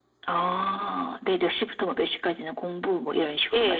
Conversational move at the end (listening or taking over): taking over